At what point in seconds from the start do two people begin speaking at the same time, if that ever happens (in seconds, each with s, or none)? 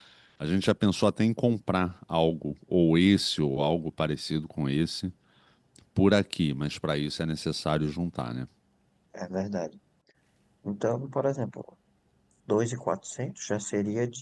none